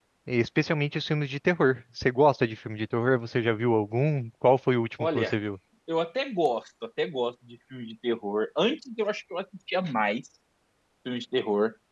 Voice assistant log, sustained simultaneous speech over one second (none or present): none